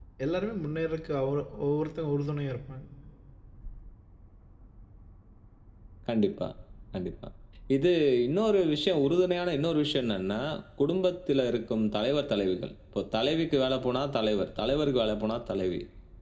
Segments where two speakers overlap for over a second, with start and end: none

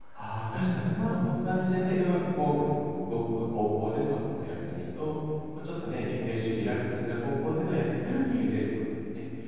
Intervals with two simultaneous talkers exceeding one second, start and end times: 0.5-1.8

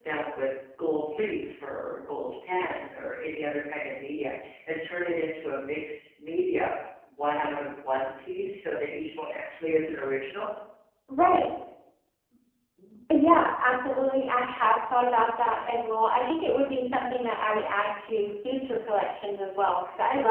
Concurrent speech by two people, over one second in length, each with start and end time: none

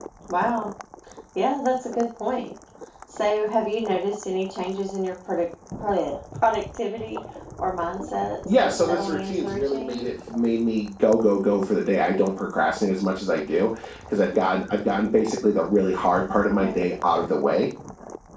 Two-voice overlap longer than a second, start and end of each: 8.6-10.1

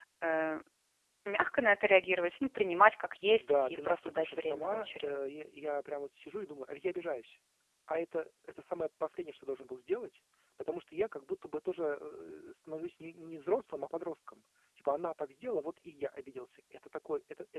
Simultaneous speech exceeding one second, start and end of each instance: 3.4-5.1

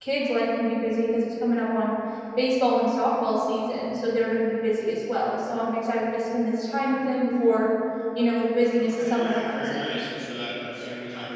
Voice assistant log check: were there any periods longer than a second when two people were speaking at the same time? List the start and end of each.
8.8-10.0

